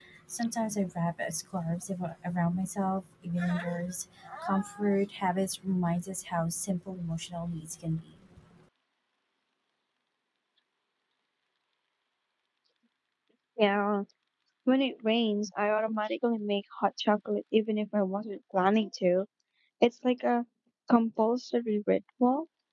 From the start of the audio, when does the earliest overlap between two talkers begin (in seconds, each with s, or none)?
none